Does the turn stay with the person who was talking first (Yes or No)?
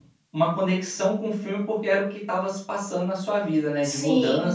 No